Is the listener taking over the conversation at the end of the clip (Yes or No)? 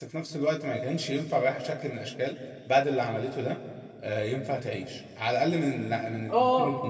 Yes